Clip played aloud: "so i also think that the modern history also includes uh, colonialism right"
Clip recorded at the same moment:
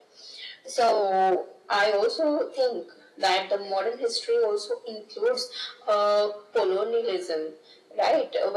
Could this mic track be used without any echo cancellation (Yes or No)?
No